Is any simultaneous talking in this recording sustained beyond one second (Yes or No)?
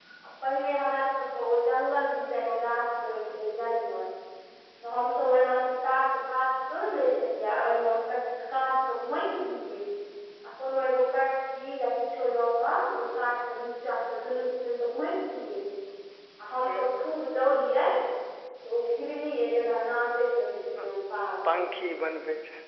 No